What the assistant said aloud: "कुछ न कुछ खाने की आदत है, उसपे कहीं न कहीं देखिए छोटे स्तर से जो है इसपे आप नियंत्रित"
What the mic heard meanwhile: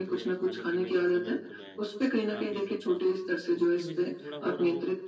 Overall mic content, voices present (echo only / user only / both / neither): both